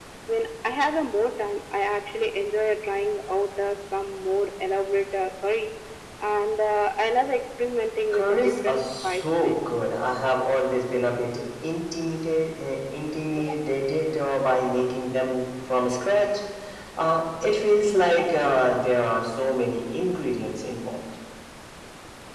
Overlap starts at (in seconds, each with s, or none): 8.1 s